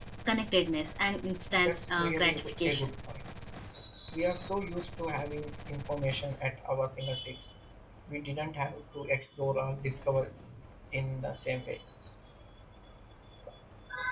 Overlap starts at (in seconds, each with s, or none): 1.6 s